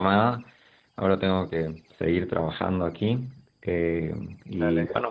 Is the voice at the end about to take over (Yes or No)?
No